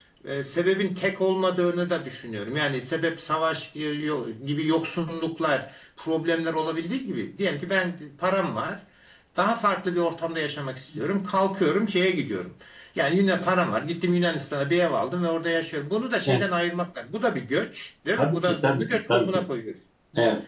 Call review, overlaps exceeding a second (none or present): present